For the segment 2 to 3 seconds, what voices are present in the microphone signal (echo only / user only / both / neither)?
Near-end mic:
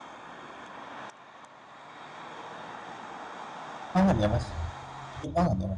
neither